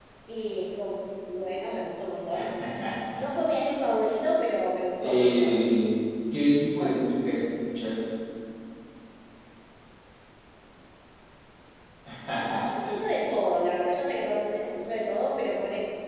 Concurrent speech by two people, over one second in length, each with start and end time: none

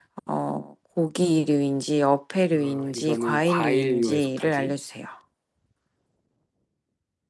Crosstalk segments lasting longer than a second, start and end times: 2.5-4.7

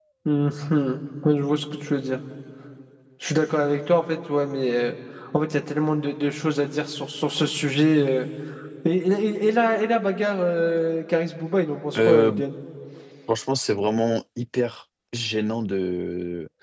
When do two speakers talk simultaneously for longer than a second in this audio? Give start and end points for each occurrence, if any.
none

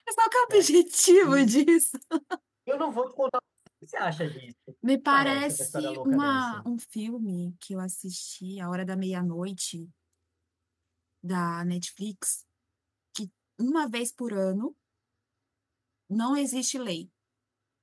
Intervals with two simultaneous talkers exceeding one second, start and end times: 5.1-6.7

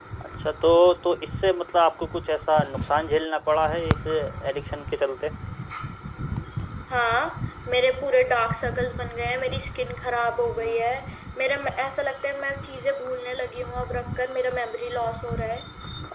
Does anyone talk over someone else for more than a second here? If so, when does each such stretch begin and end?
none

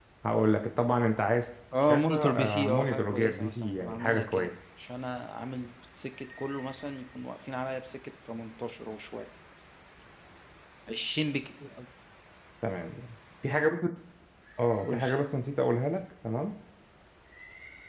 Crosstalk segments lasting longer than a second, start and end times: 1.8-4.5

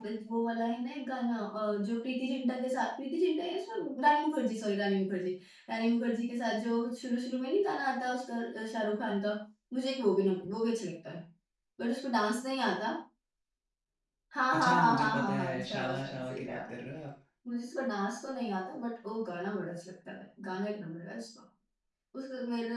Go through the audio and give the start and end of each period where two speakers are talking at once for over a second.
14.5-16.7

